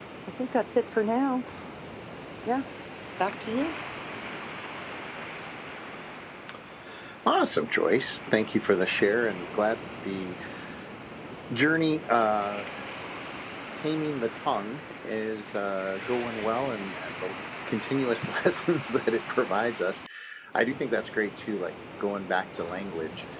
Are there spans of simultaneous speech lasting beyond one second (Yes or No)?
No